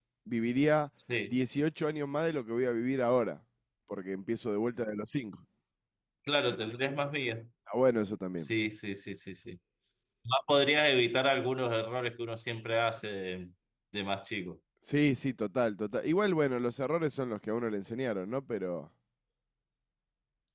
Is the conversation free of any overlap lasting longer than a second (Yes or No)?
Yes